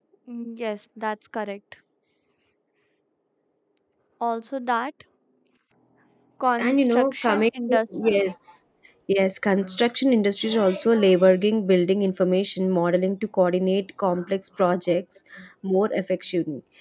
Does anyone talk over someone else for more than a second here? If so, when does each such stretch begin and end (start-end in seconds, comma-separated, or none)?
6.6-7.8